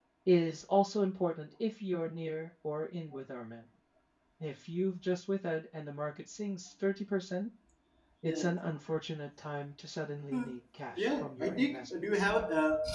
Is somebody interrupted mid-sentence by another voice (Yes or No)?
Yes